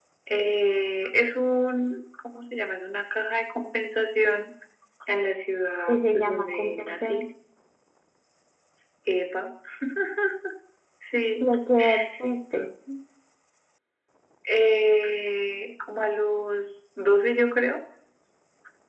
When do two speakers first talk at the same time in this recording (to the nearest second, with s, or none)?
6 s